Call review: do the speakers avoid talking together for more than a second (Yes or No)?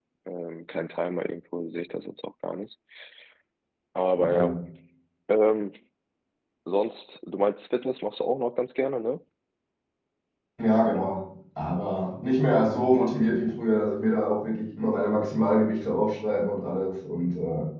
Yes